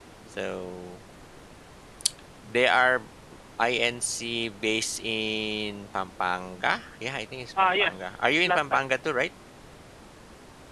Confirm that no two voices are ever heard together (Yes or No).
No